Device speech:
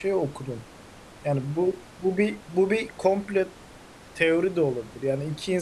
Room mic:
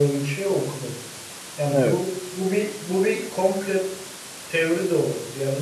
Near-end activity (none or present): present